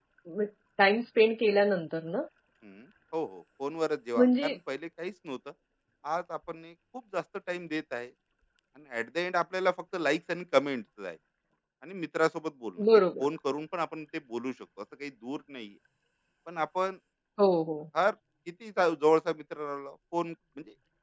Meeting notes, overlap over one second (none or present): none